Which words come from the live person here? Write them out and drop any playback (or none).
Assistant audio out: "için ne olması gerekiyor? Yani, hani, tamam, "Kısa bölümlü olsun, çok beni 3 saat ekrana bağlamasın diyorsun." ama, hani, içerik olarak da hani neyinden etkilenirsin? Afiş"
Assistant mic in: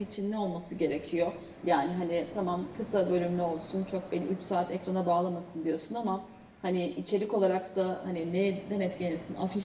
none